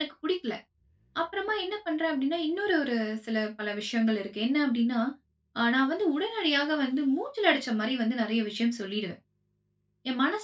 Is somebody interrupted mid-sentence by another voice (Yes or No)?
No